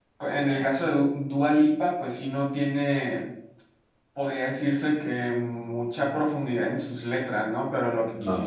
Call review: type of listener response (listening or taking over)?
listening